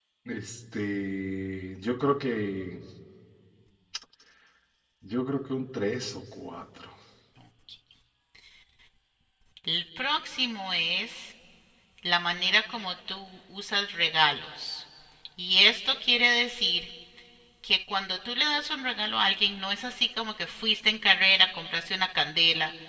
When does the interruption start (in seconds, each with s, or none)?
none